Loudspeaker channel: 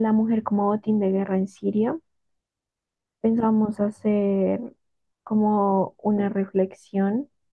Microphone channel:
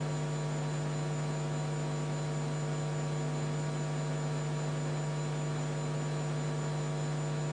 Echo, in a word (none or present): none